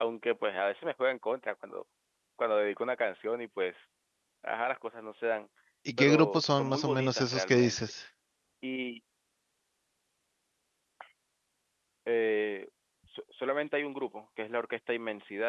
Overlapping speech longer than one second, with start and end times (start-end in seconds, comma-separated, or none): 6.0-7.8